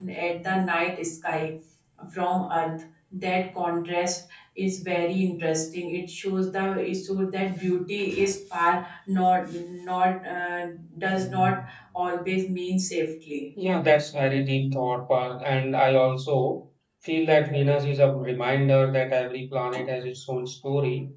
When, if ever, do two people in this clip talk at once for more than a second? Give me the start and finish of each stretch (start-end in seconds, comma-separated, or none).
none